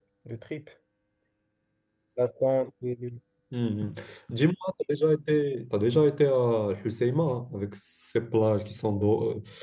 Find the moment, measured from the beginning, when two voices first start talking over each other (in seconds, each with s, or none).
none